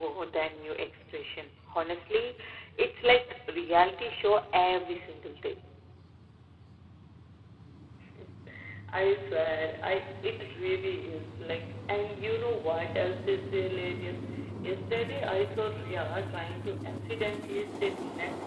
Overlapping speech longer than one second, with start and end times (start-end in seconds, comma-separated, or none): none